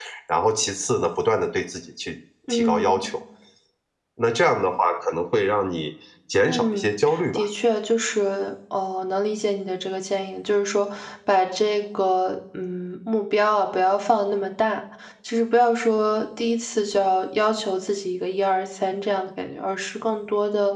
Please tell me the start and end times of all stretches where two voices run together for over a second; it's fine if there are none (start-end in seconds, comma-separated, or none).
none